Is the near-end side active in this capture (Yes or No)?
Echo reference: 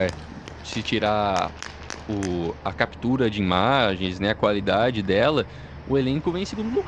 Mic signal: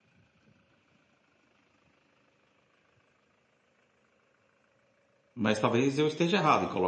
Yes